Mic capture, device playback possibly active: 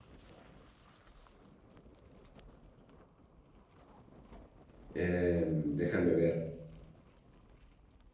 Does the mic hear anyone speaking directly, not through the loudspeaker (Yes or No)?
Yes